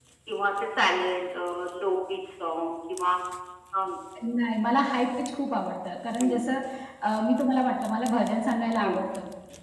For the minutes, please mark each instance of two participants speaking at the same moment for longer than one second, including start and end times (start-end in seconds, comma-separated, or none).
none